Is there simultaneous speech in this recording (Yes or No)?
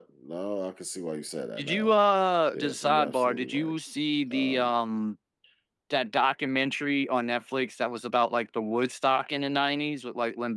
Yes